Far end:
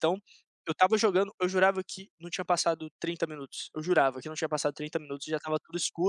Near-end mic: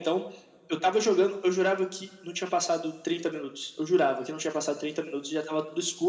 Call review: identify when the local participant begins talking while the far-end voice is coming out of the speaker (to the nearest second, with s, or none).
none